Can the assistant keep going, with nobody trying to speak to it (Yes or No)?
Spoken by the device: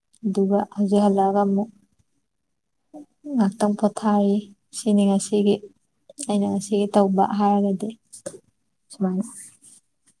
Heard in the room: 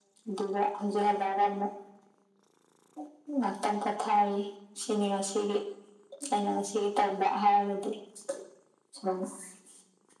Yes